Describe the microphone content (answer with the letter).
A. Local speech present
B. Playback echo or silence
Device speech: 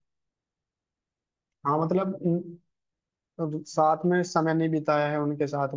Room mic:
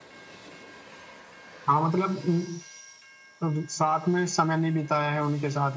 B